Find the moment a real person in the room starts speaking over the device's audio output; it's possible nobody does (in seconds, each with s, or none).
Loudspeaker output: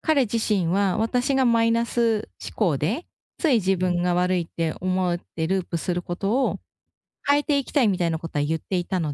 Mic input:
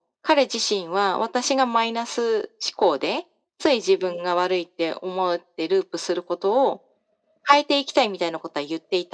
none